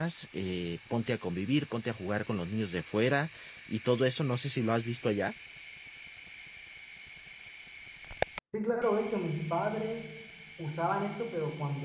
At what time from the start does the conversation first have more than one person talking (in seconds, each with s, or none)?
none